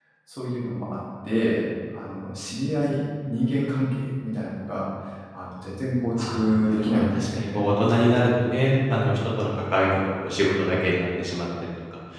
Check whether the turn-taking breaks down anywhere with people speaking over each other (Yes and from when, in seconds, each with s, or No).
Yes, from 6.2 s